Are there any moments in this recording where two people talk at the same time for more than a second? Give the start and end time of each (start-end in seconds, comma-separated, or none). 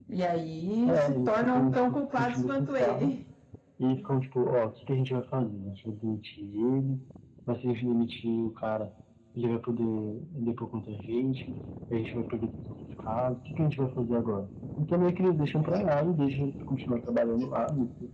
0.8-3.2